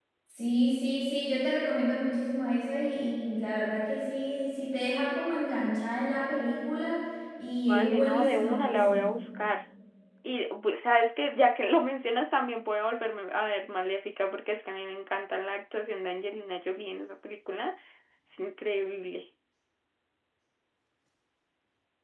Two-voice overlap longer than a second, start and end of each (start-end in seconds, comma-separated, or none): 7.7-9.1